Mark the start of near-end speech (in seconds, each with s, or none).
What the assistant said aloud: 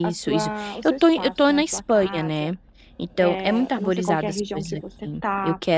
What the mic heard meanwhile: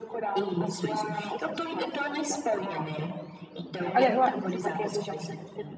3.9 s